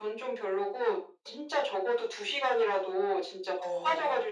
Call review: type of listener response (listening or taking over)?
listening